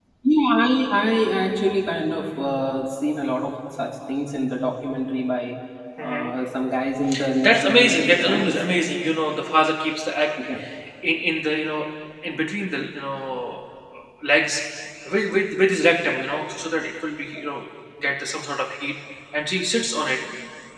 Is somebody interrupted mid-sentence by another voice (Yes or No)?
Yes